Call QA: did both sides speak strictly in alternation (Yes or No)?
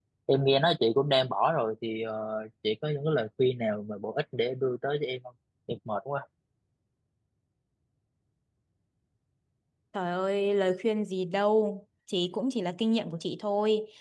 Yes